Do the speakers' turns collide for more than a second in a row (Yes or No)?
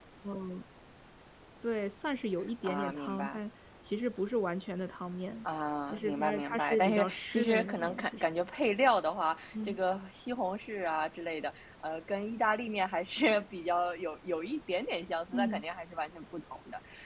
Yes